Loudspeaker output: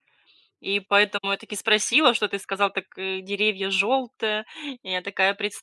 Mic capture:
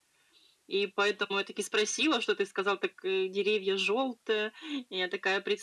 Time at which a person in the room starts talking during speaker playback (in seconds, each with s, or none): none